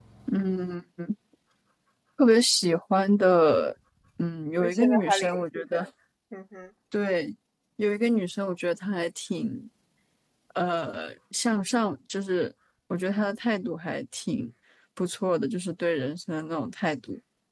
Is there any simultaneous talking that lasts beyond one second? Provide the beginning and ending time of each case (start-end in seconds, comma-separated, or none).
4.6-5.8